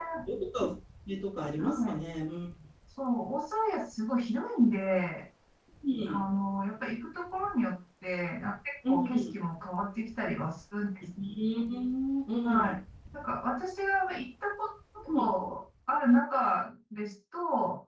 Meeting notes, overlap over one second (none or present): none